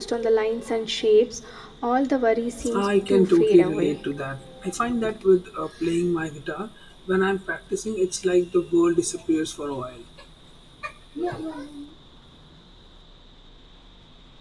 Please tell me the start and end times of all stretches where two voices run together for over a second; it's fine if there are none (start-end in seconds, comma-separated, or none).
2.7-3.9